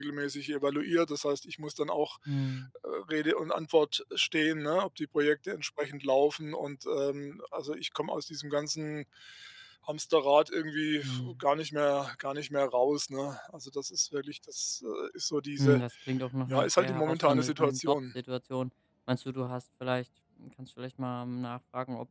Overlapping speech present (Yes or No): Yes